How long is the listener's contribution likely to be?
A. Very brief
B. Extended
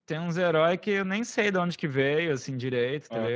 A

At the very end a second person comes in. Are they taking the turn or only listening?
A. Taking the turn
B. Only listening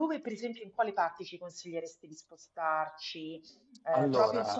B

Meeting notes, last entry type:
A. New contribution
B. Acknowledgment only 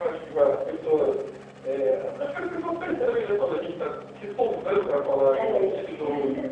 B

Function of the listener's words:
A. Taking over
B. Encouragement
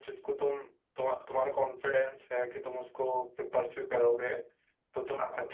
B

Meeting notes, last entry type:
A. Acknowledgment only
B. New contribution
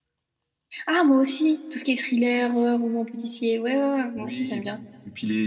B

